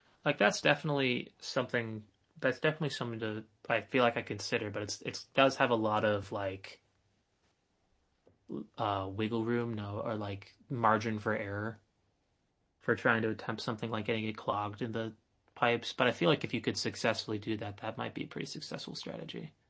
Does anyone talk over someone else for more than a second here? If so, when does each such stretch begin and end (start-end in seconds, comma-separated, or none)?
none